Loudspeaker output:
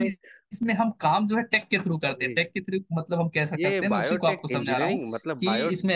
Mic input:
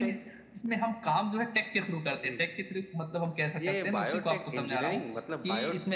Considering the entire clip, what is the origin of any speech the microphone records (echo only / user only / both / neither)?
echo only